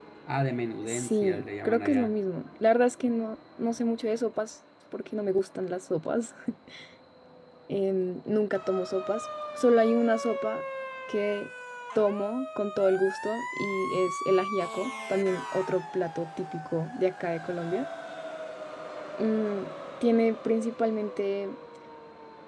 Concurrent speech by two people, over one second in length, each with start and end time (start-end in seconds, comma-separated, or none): 0.9-2.1